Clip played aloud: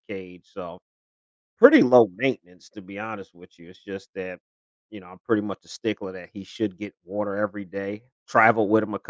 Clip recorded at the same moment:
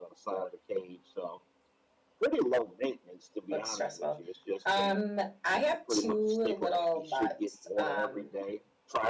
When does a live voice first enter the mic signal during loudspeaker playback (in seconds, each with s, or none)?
3.5 s